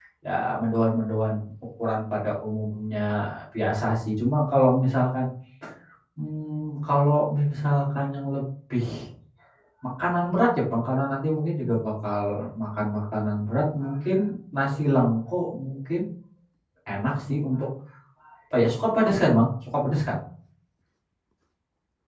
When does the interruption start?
none

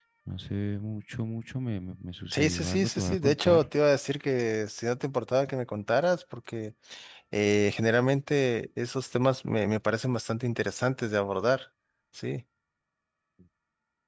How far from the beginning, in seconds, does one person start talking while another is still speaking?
2.3 s

